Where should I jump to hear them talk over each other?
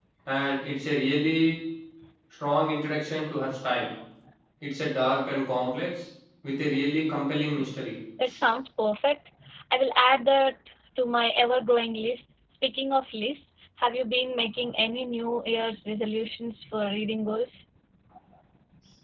none

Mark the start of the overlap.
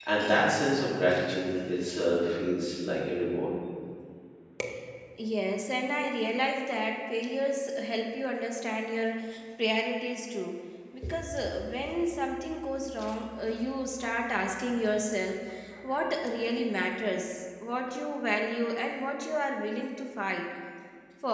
none

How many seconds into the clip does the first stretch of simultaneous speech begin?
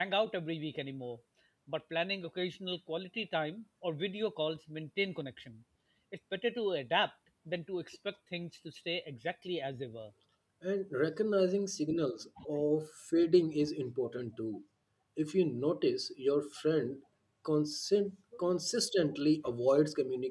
none

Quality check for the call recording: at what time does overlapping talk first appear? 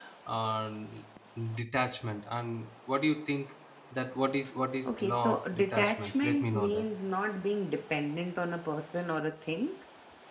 4.9 s

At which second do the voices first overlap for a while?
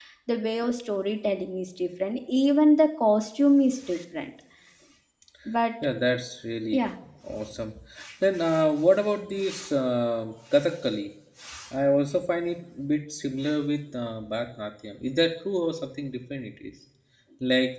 none

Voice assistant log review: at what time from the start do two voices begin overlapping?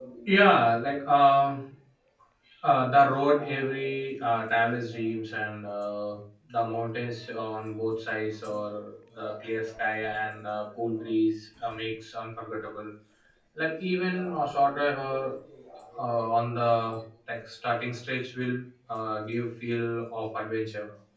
none

